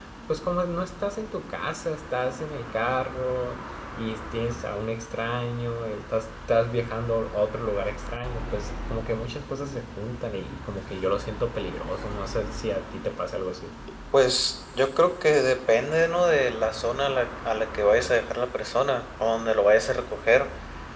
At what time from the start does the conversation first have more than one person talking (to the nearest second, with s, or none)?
none